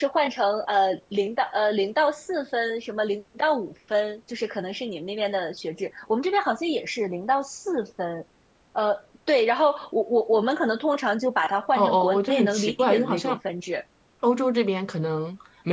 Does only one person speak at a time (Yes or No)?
No